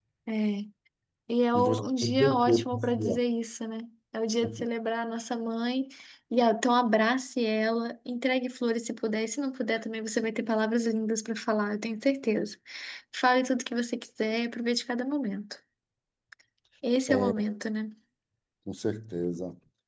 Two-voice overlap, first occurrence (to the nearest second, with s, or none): 2 s